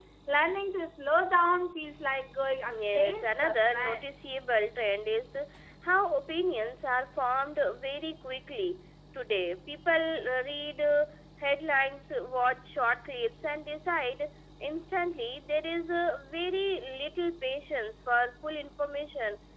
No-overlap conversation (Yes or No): No